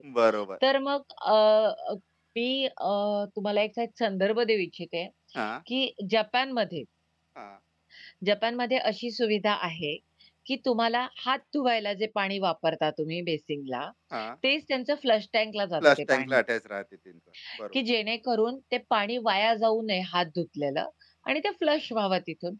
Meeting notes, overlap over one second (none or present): none